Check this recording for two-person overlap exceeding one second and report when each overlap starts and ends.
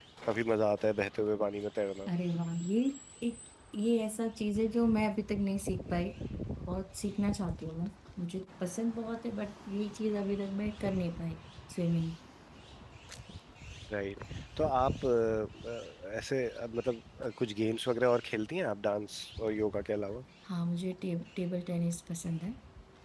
none

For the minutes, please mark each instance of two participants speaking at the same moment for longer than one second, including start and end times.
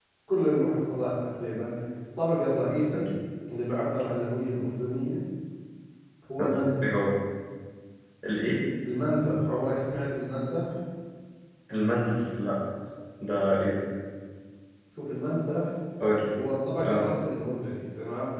none

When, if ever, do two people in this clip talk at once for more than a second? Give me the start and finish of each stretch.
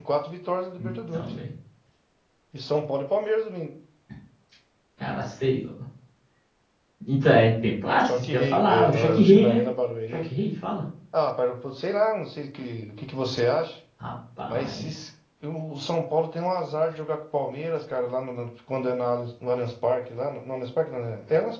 8.0-9.6

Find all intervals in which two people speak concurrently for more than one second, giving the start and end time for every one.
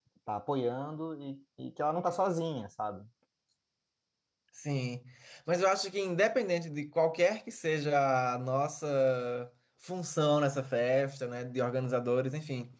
none

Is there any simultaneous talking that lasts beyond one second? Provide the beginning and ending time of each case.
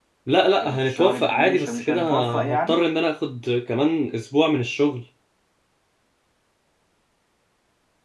0.6-2.8

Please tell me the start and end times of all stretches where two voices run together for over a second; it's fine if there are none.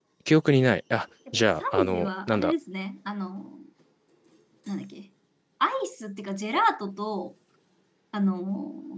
1.3-2.5

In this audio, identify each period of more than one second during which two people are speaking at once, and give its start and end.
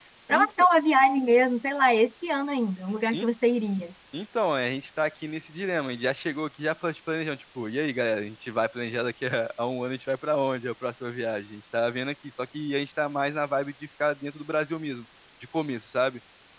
none

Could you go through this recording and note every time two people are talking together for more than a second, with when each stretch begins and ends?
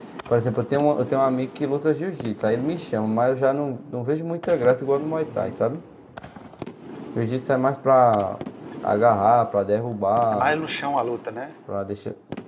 none

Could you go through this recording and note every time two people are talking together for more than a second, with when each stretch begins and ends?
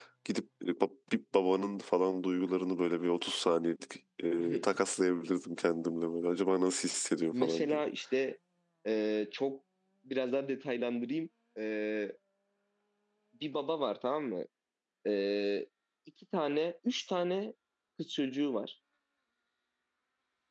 none

